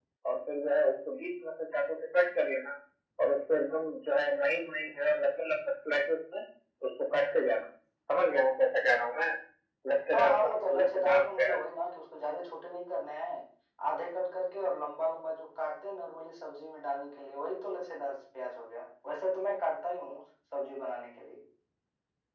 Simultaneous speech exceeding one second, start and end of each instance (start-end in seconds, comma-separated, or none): 10.1-11.6